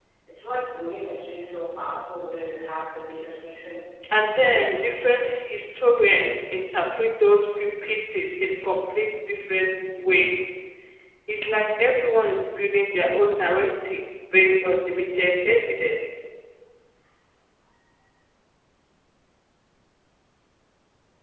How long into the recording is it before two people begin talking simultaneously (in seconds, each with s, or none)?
none